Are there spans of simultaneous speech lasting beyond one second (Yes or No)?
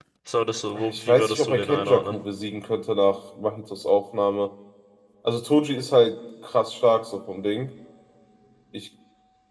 Yes